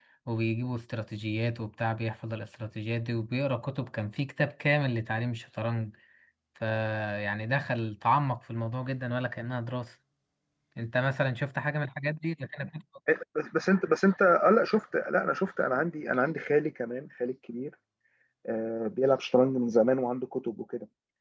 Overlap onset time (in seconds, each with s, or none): none